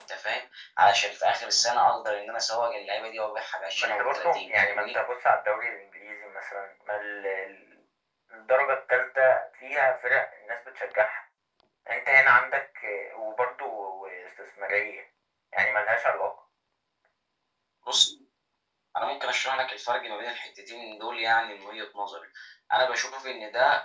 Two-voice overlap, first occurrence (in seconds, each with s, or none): 3.8 s